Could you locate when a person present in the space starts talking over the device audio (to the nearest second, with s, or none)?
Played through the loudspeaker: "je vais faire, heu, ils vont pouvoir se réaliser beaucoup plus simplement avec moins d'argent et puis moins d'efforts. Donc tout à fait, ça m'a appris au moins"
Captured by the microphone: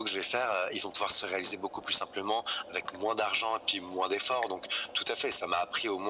none